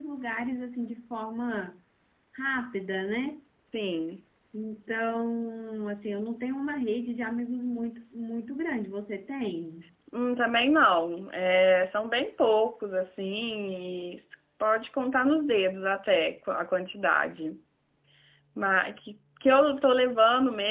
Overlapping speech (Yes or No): No